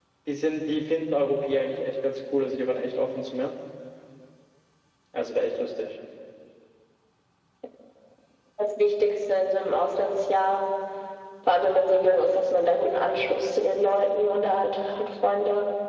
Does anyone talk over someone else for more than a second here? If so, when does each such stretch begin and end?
none

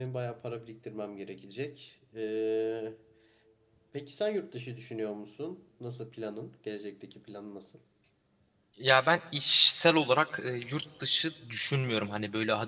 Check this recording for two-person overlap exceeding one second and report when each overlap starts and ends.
none

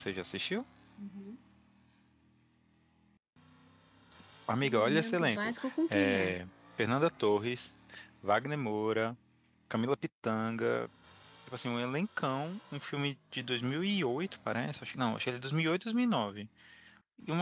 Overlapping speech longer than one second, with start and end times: 4.6-6.4

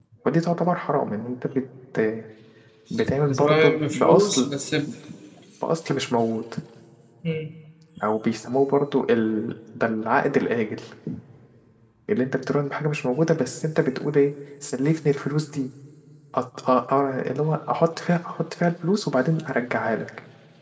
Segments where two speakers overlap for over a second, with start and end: 3.3-4.5

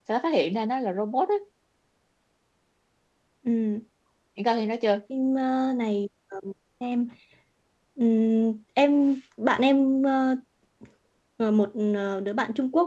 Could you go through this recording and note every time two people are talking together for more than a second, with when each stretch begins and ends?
none

